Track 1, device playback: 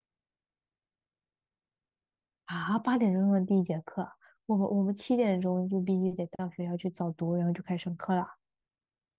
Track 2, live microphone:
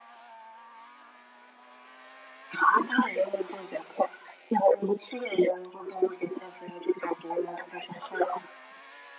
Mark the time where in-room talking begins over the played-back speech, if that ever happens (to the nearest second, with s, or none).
none